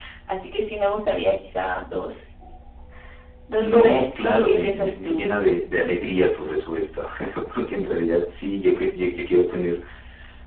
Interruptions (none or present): present